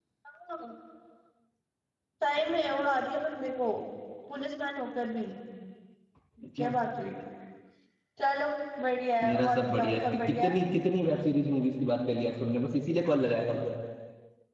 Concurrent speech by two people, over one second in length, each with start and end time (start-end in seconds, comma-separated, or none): 9.2-10.6